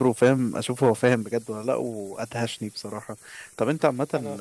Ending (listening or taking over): listening